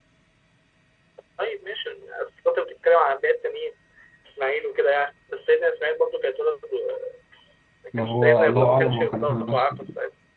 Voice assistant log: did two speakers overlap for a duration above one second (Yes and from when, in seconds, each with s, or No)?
Yes, from 8.0 s